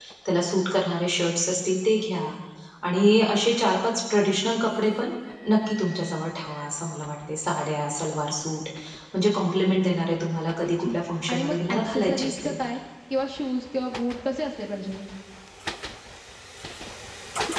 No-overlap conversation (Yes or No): No